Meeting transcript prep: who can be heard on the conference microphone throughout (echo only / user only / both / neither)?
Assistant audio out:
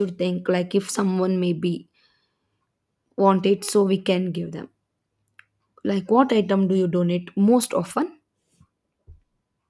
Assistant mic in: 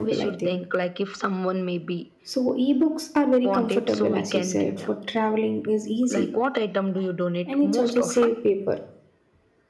both